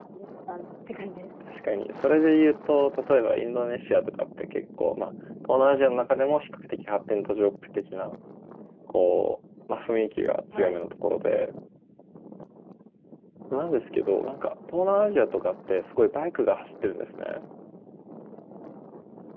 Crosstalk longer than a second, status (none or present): none